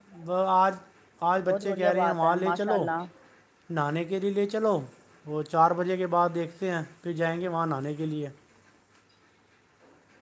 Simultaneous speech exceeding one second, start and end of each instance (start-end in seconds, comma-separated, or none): 1.4-2.9